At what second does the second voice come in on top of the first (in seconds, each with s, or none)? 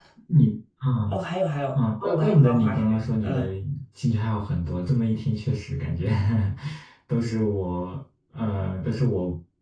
1.7 s